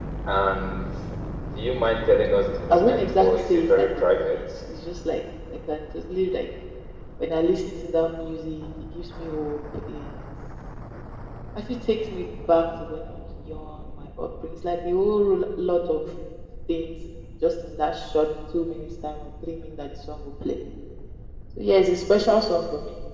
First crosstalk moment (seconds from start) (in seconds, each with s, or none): 2.7 s